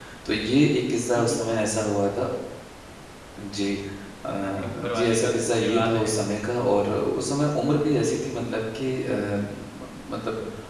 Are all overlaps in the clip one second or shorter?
No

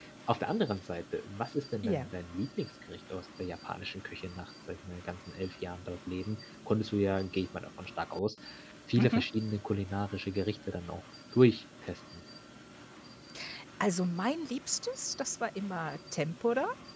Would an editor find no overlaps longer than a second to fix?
Yes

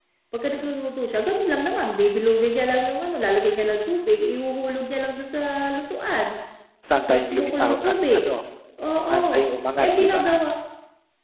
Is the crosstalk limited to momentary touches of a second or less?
No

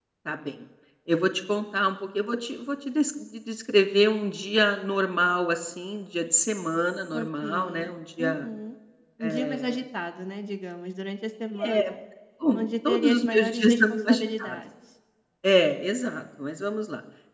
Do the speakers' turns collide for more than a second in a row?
Yes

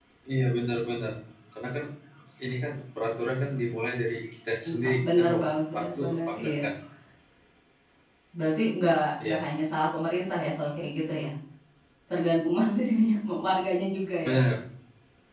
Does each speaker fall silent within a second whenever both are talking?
No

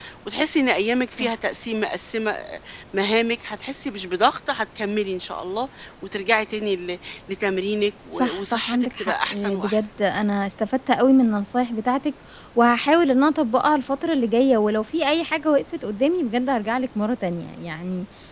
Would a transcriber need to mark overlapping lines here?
Yes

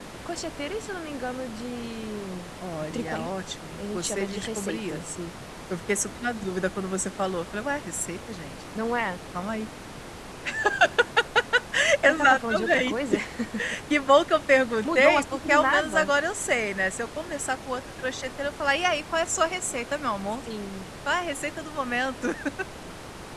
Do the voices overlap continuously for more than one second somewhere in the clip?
Yes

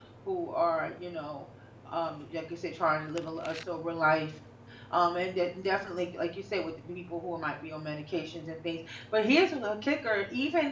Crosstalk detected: No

